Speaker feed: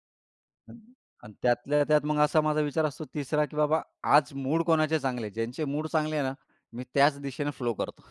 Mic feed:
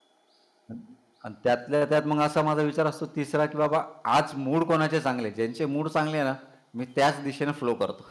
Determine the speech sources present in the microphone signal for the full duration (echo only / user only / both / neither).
echo only